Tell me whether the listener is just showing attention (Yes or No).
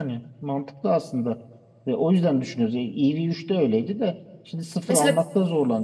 Yes